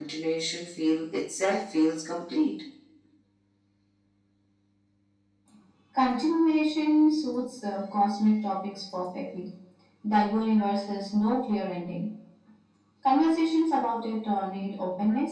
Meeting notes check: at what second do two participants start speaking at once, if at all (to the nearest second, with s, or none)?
none